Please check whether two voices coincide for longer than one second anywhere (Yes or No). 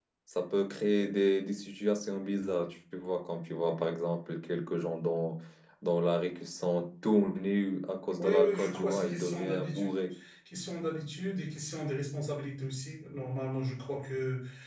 Yes